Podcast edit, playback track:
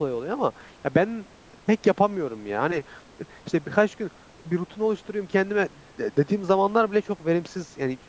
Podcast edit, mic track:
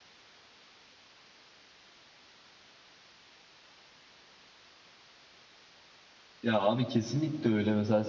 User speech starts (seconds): 6 s

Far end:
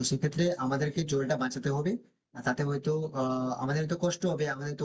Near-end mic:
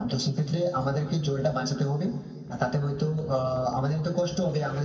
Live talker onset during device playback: none

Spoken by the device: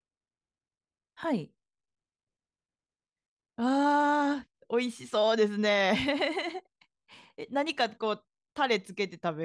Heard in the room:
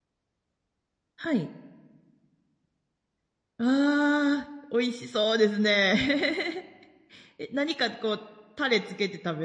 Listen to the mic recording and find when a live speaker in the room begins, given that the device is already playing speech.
none

